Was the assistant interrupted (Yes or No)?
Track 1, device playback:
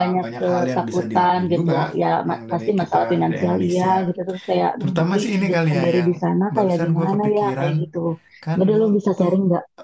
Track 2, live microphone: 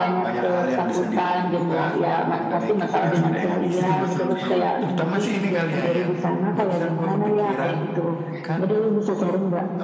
Yes